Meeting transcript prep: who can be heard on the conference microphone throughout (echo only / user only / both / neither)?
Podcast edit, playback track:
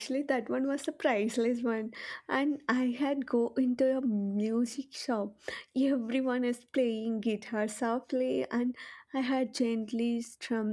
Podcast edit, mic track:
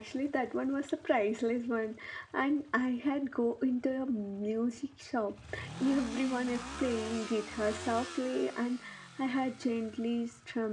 echo only